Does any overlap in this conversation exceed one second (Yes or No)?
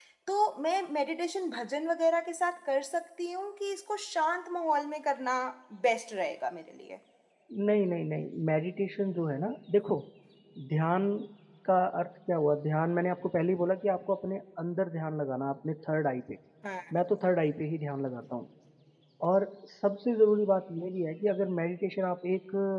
No